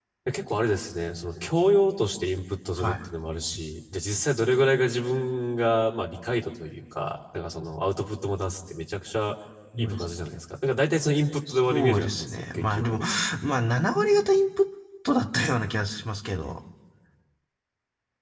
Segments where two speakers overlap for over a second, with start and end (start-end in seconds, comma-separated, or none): 11.5-13.0